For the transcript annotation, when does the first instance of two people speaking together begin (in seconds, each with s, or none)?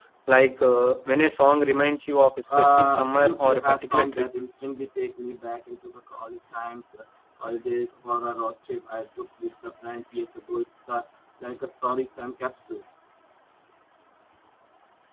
2.5 s